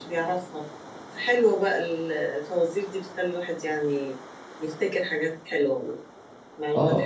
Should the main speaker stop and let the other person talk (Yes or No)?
Yes